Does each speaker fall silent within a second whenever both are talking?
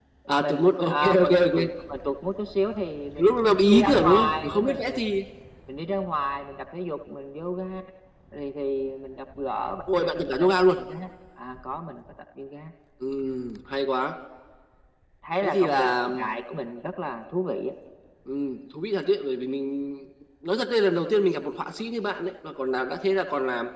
No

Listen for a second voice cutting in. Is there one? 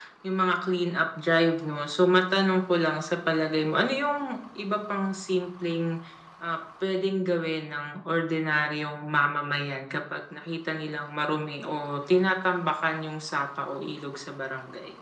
No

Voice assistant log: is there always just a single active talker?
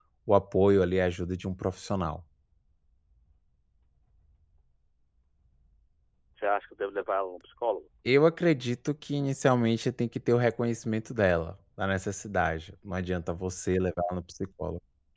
Yes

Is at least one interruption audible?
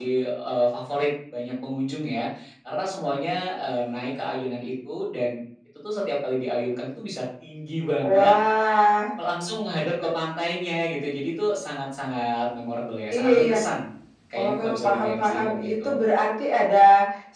Yes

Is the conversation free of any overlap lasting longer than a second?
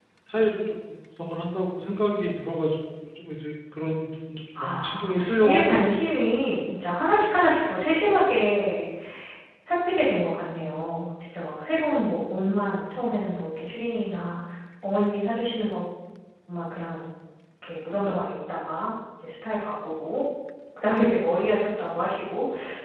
No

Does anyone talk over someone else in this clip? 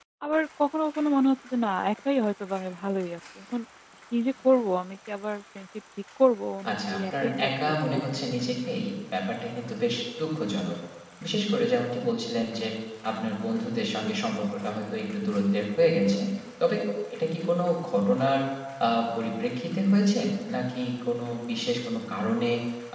Yes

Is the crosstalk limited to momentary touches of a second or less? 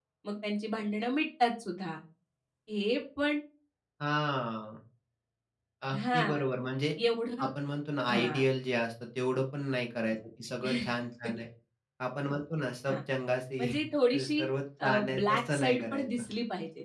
No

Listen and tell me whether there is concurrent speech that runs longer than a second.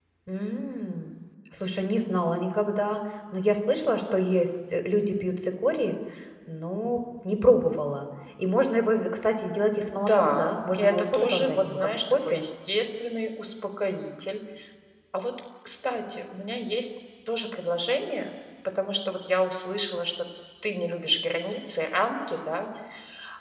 Yes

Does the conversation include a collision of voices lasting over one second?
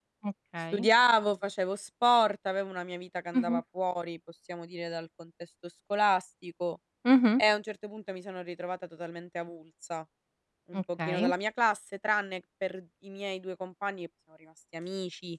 No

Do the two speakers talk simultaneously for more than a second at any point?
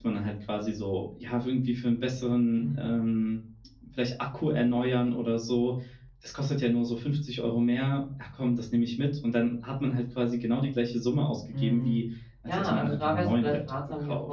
Yes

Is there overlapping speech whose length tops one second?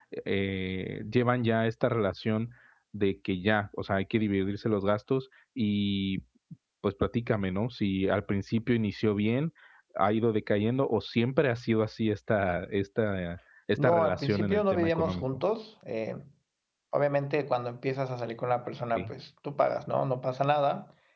Yes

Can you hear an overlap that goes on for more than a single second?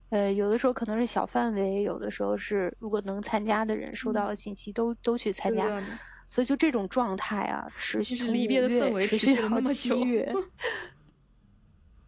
Yes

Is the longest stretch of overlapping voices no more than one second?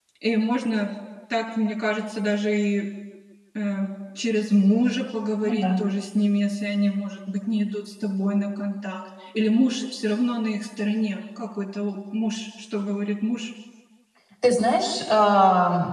Yes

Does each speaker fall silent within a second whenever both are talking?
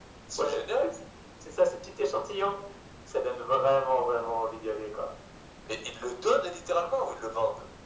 Yes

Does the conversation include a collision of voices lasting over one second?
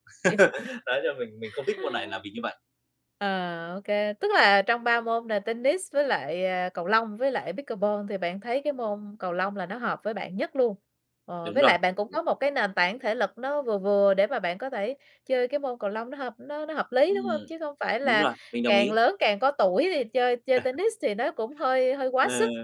No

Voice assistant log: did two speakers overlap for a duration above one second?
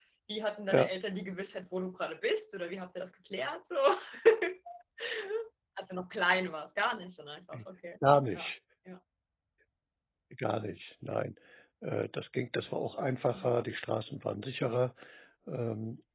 No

